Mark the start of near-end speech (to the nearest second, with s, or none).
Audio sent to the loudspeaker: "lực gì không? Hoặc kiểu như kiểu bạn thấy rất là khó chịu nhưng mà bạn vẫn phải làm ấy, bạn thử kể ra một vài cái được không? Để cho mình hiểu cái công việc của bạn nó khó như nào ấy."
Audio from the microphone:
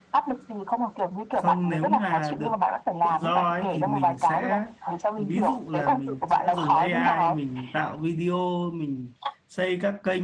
1 s